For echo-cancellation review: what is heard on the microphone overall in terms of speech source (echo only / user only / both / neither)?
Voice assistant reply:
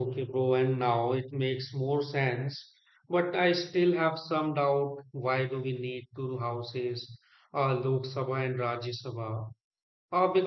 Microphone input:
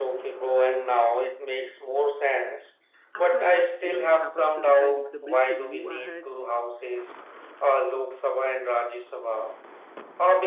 both